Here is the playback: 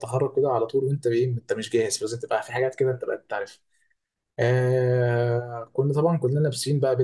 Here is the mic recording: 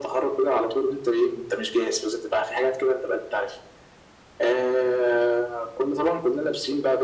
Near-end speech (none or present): none